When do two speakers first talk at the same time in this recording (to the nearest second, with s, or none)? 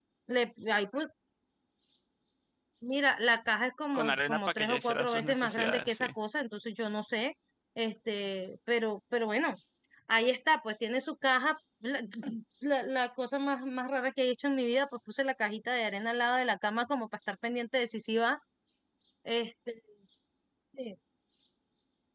4 s